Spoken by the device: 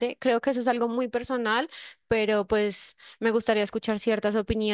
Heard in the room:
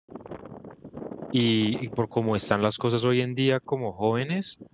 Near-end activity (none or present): present